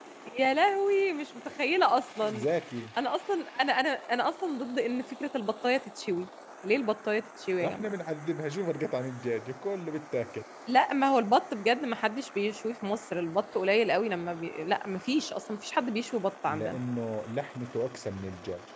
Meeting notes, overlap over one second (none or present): none